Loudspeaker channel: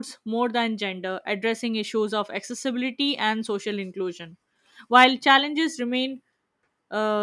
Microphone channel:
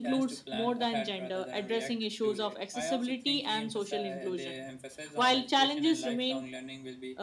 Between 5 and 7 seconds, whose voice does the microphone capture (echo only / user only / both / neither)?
both